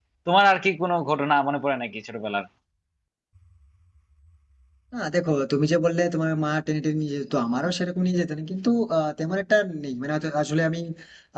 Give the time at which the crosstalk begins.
none

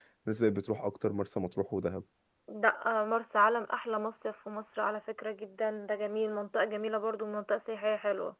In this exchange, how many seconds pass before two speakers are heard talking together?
none

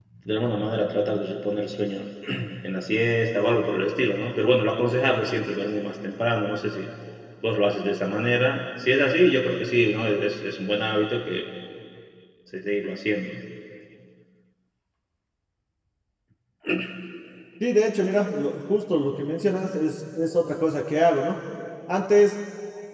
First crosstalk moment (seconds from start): none

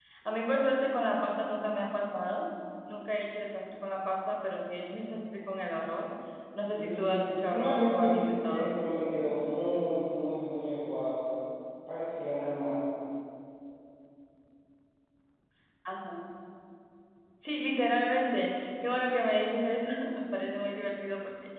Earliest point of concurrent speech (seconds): 6.8 s

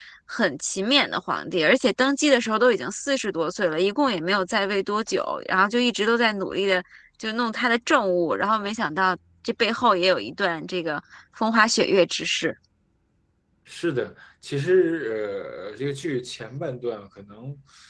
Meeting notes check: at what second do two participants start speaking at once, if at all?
none

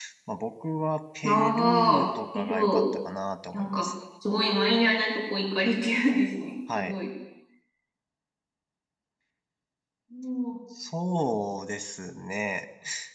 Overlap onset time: 1.2 s

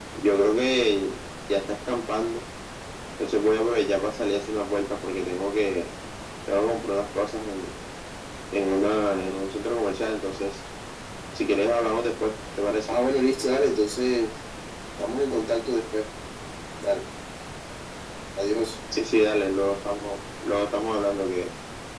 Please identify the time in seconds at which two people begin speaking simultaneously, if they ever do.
none

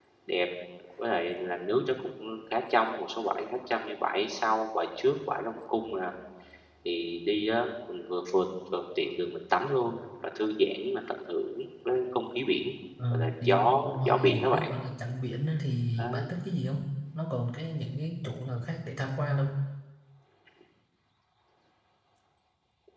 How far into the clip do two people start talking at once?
13.1 s

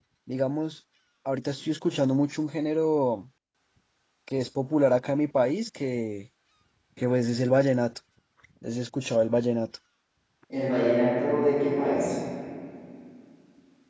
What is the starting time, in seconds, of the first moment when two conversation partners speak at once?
none

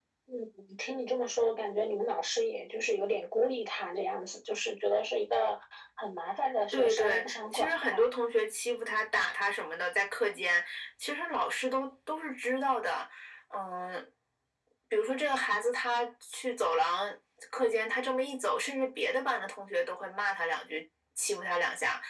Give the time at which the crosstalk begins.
6.7 s

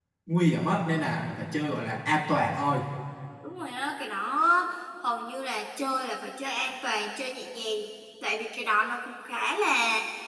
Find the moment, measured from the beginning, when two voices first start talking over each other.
none

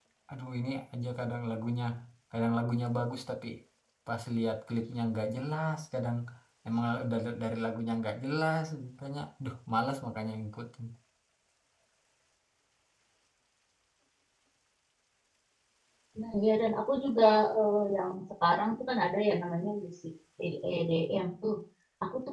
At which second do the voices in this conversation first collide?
none

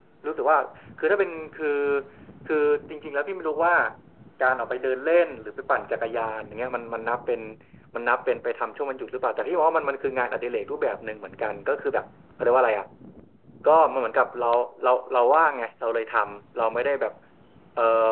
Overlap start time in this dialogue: none

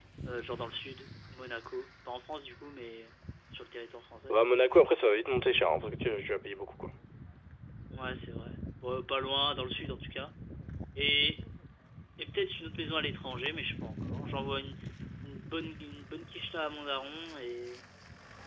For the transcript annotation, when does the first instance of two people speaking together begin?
none

